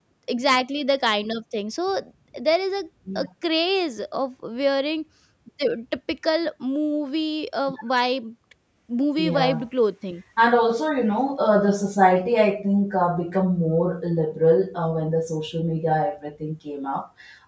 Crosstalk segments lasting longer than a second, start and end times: none

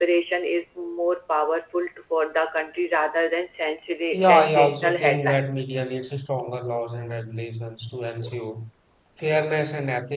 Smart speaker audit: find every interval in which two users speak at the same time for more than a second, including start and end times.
4.1-5.6

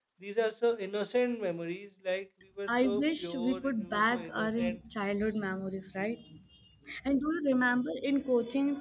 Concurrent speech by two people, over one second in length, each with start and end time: 2.7-4.8

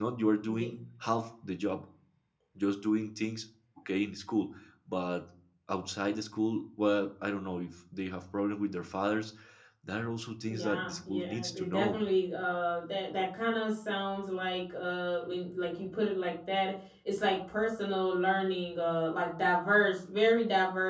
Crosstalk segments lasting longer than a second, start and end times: 10.5-12.0

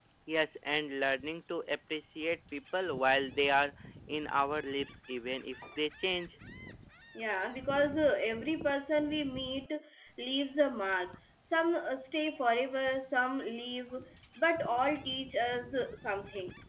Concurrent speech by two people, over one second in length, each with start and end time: none

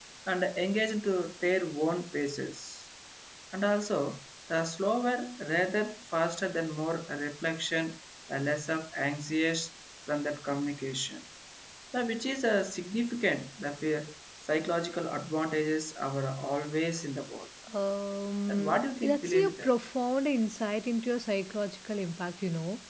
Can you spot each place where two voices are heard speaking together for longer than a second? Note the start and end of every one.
18.5-19.7

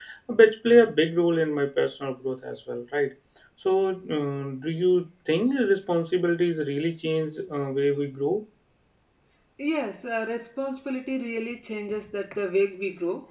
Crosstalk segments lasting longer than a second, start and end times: none

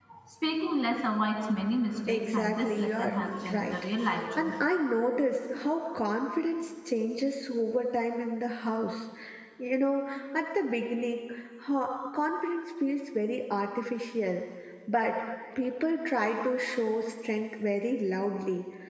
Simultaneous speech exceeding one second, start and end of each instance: 2.1-3.7

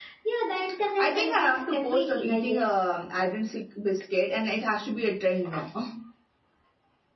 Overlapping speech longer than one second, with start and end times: 1.0-2.8

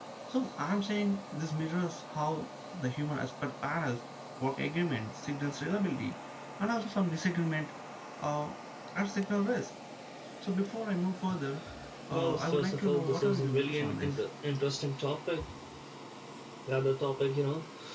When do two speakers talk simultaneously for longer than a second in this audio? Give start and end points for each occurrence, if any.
12.1-14.1

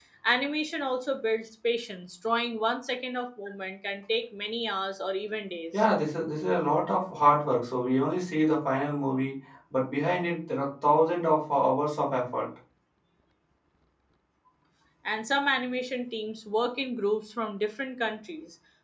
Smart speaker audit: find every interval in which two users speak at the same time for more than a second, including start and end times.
none

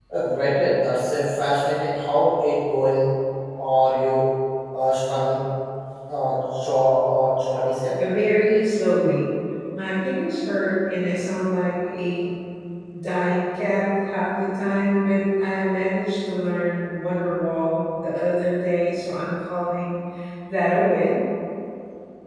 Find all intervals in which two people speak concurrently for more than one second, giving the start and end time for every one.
none

